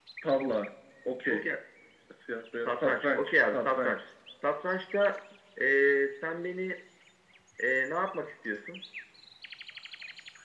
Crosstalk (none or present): present